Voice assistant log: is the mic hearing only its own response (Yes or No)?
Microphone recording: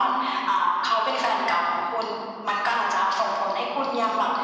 Yes